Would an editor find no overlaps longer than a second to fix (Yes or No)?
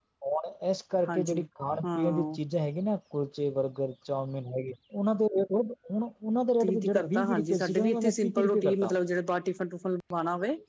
No